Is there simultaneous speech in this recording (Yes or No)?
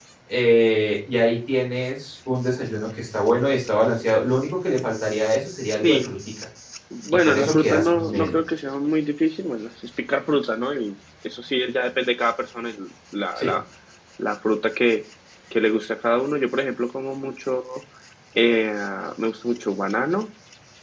Yes